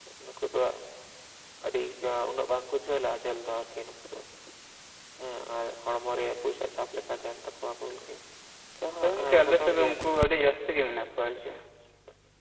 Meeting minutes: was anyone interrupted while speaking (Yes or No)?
Yes